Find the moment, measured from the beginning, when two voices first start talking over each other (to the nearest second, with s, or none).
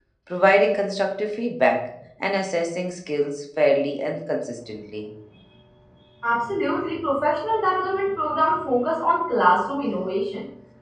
none